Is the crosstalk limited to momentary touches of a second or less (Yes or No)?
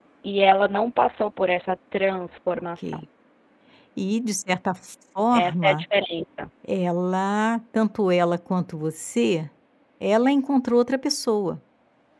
Yes